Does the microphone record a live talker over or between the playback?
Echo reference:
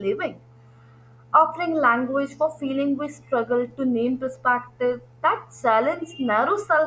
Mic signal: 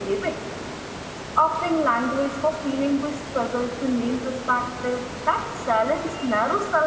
No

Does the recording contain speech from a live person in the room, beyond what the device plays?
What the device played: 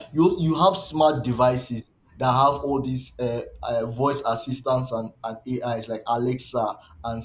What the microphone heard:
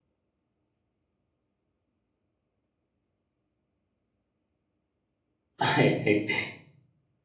Yes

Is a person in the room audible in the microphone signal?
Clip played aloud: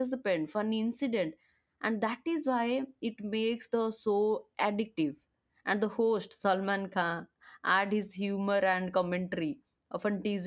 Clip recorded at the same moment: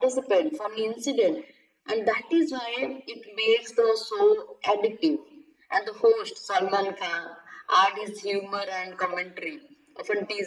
No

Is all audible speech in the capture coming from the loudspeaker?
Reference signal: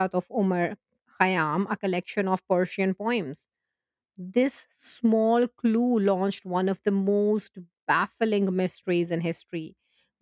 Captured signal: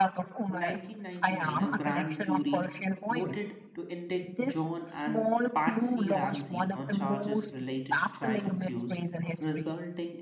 No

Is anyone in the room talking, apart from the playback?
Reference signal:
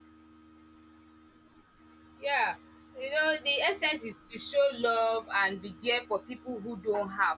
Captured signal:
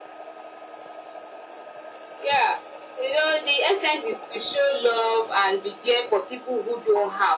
No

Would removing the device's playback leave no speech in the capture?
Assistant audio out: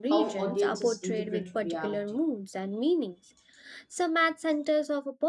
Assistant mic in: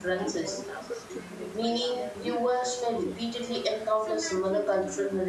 No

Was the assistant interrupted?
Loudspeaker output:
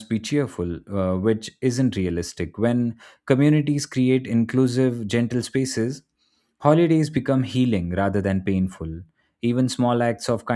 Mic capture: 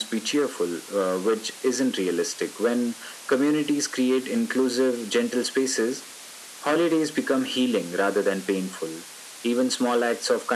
No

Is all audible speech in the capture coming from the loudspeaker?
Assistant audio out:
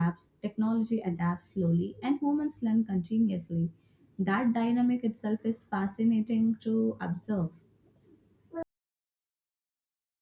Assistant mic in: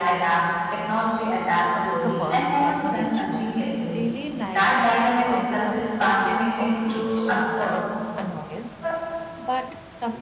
No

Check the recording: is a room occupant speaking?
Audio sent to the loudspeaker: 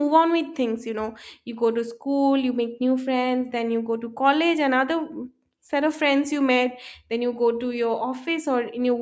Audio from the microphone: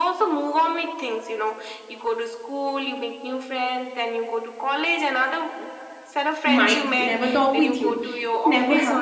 Yes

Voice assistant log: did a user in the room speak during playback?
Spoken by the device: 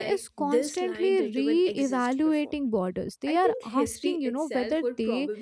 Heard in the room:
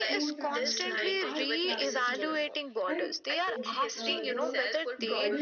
Yes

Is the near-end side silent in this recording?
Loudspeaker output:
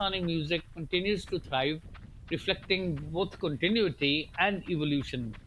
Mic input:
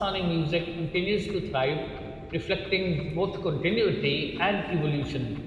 Yes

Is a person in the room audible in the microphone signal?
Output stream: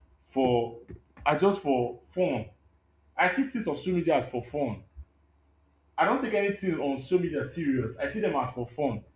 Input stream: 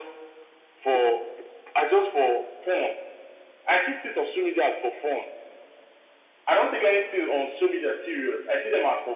No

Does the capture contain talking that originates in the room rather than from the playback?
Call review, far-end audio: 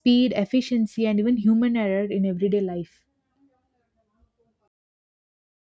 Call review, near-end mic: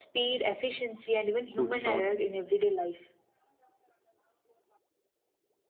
Yes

